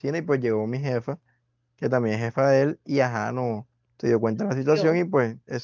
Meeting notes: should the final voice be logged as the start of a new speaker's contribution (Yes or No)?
No